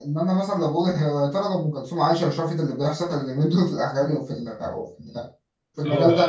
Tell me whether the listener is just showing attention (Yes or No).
No